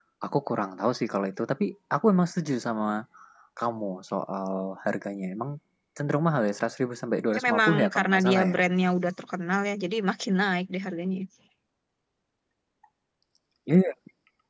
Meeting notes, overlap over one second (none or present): present